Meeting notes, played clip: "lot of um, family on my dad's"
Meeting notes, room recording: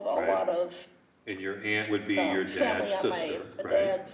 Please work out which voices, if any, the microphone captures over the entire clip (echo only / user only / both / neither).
both